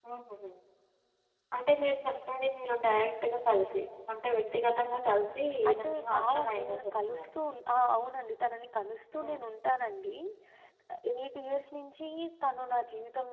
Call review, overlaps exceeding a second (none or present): present